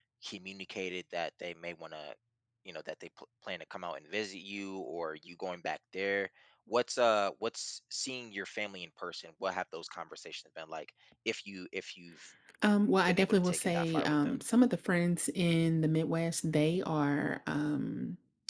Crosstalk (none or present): present